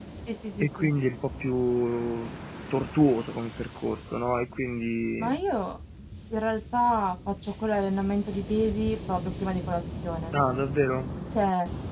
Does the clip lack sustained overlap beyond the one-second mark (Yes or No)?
Yes